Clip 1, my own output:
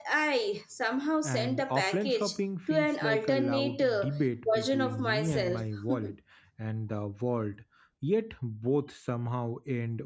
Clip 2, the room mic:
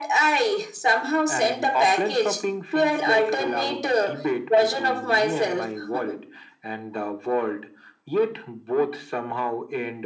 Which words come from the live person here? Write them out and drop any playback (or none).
none